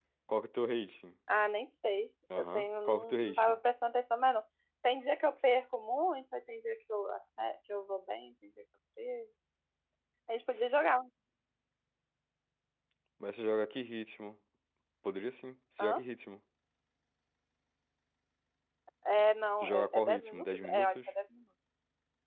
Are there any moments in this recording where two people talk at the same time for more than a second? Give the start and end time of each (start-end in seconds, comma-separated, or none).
2.4-3.6, 19.6-21.0